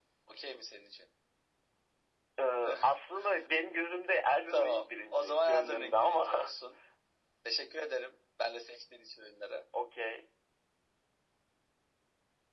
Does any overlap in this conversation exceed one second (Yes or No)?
Yes